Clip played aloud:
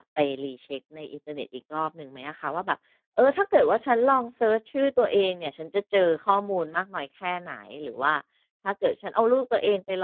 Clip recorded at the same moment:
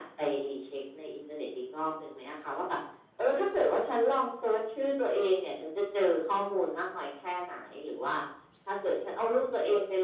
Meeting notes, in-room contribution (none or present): none